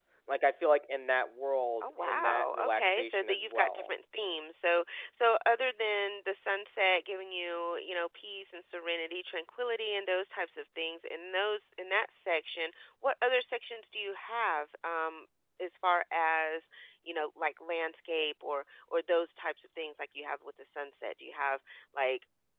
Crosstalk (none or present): present